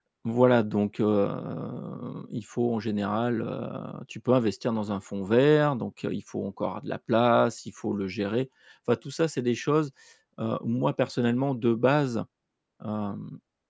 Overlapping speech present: No

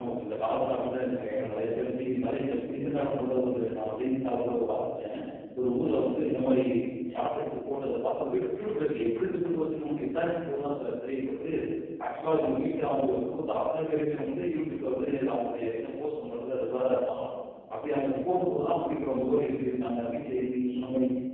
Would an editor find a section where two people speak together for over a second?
No

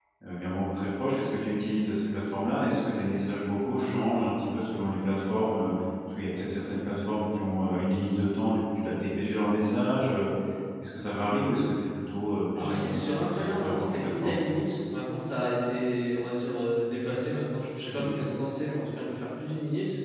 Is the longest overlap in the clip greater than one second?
Yes, from 12.6 s

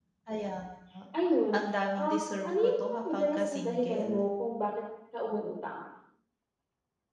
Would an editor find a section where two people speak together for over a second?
Yes, from 2.0 s

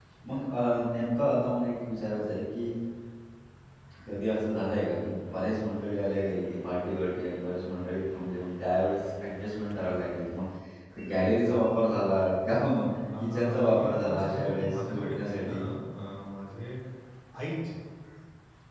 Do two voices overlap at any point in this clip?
Yes, from 13.0 s

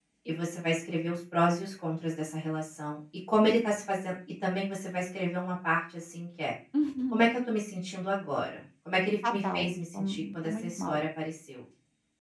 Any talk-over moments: Yes, from 9.2 s

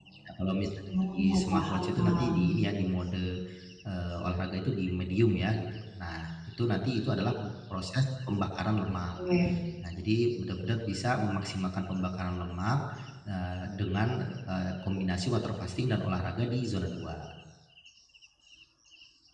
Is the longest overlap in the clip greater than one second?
Yes, from 1.1 s

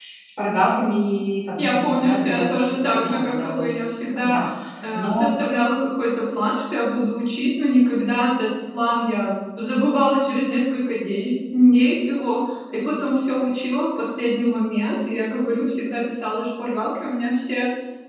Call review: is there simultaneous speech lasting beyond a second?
Yes, from 1.6 s

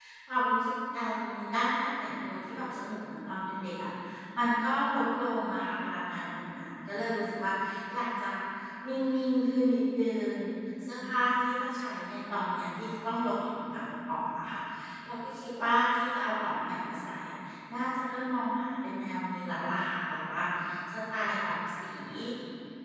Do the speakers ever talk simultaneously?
No

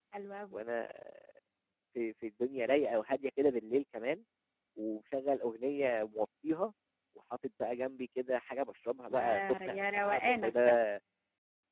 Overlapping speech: Yes, from 9.1 s

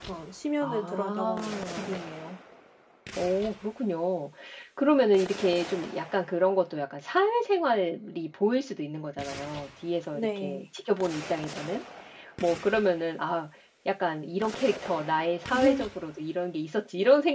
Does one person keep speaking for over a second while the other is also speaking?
Yes, from 0.6 s

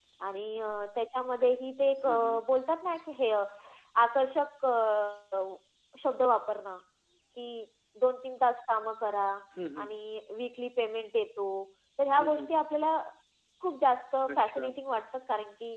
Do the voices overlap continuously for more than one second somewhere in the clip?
No

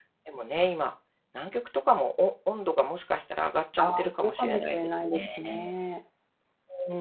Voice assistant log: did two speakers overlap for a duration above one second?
Yes, from 3.8 s

